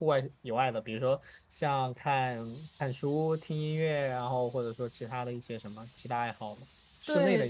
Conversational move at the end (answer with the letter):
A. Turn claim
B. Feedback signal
A